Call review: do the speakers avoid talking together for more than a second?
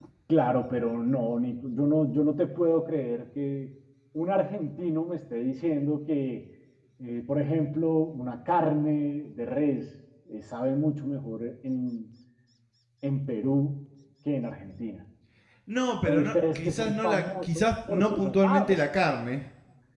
No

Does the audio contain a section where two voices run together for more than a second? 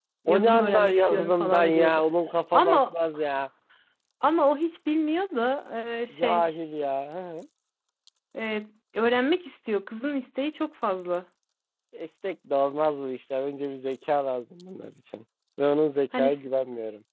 Yes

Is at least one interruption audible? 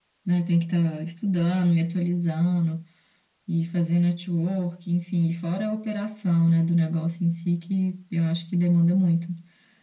No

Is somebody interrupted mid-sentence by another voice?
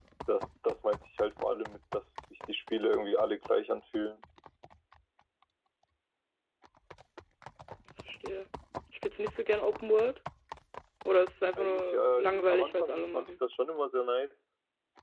Yes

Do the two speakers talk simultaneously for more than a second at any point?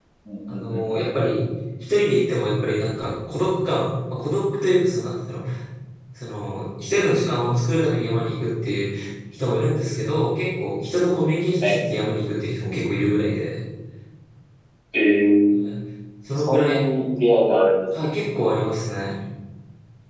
No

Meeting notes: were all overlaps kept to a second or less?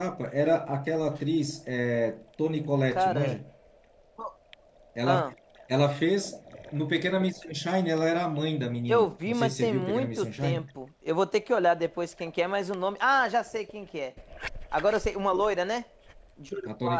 No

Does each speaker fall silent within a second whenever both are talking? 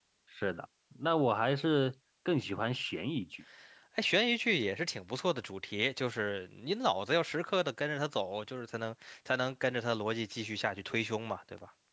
Yes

